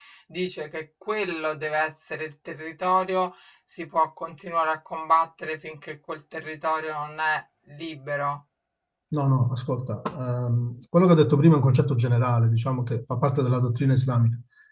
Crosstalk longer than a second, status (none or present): none